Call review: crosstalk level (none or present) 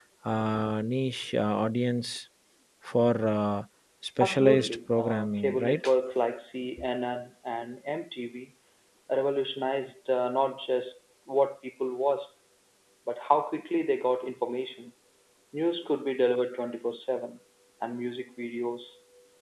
present